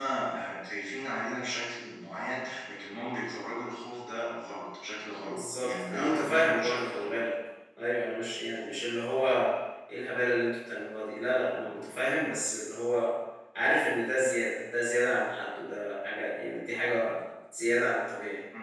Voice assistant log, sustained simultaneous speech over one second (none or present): present